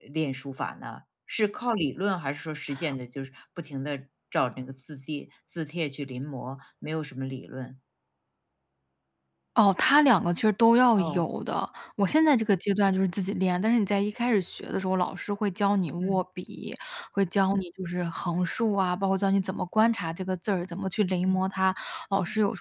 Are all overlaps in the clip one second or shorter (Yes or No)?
Yes